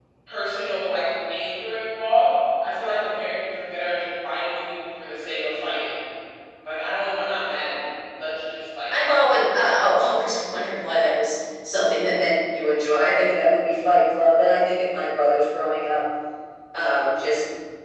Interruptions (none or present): none